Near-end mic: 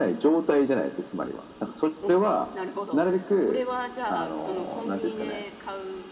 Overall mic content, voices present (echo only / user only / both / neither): both